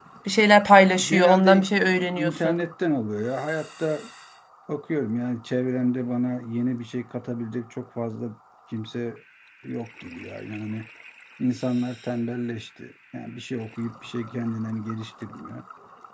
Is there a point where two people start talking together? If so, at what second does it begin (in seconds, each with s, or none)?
1.0 s